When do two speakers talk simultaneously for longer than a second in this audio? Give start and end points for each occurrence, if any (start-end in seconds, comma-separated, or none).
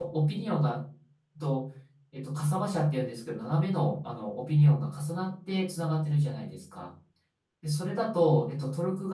none